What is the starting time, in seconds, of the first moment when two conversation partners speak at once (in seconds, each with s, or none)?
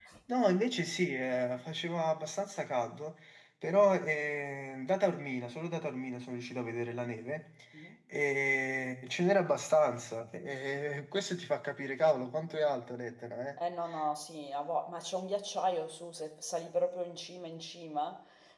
none